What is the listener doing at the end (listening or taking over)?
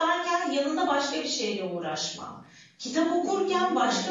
listening